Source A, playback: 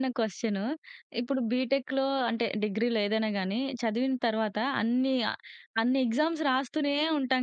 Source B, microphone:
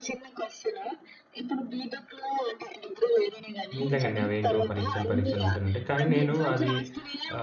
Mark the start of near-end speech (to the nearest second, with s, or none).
4 s